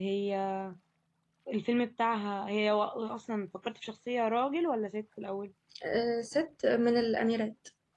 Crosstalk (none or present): none